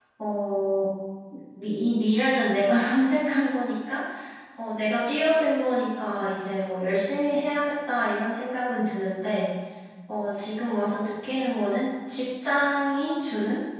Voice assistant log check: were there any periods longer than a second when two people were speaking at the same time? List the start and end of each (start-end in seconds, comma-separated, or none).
none